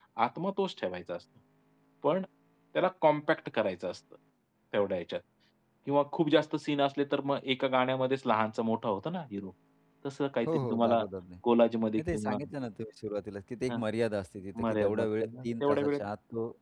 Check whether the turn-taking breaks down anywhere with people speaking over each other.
Yes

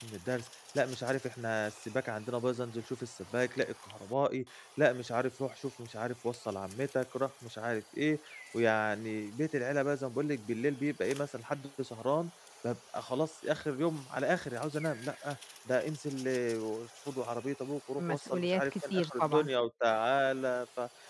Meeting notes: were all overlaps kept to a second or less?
No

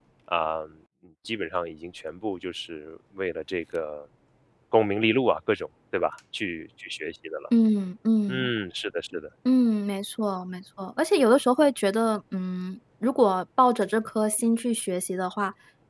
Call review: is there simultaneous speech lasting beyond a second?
No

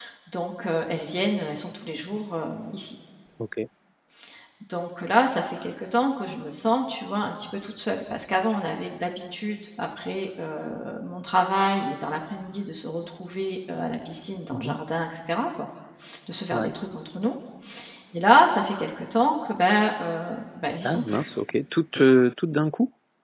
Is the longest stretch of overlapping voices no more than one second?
Yes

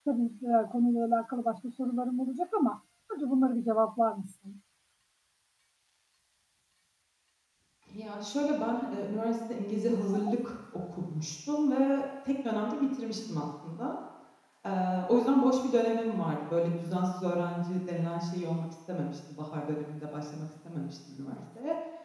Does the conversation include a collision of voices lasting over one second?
No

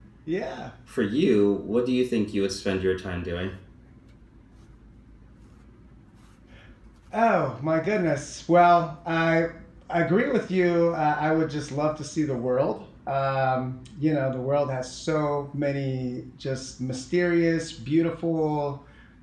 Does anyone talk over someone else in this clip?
No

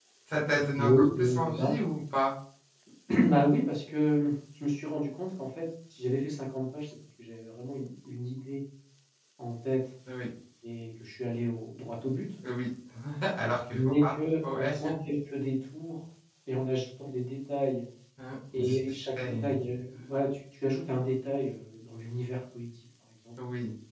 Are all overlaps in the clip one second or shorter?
No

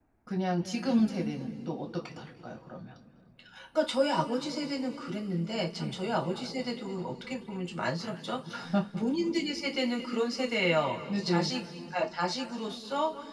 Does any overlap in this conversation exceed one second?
No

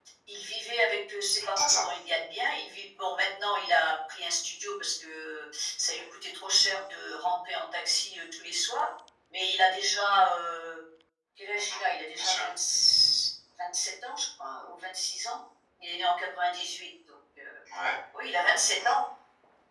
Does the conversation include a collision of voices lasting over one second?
No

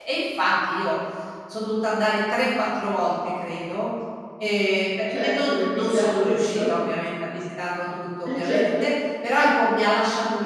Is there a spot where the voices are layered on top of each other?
Yes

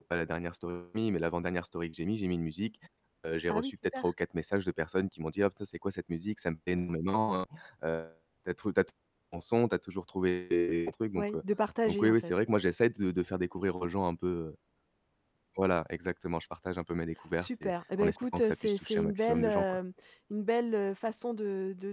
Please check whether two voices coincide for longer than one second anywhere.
Yes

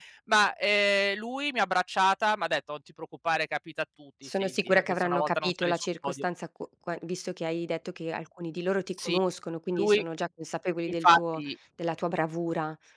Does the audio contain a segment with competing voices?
Yes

